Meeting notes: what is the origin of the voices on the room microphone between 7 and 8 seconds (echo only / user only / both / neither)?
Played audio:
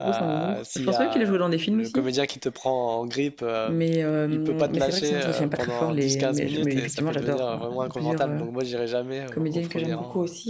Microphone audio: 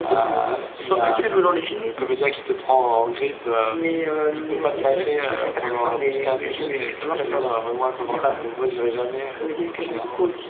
echo only